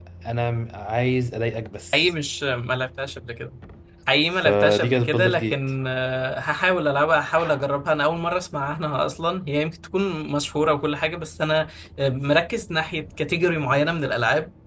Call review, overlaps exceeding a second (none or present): present